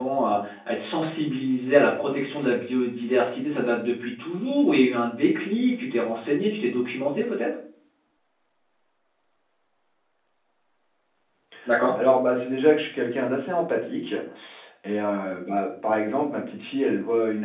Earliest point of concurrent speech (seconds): none

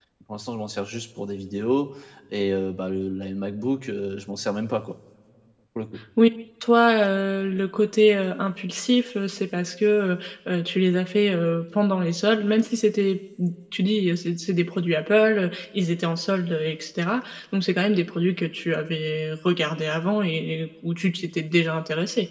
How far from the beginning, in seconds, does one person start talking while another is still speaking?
none

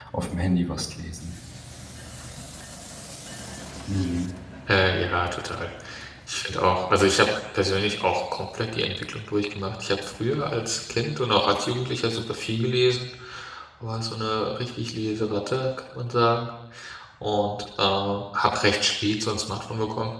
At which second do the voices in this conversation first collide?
none

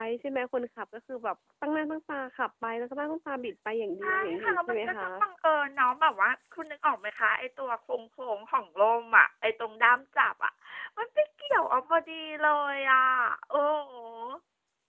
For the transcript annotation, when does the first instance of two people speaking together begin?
4.0 s

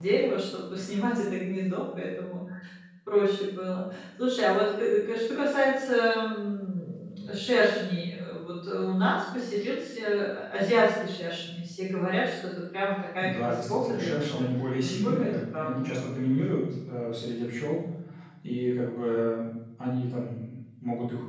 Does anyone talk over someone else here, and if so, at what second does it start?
13.2 s

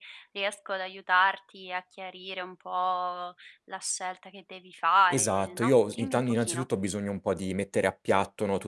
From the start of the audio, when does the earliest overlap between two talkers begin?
5.1 s

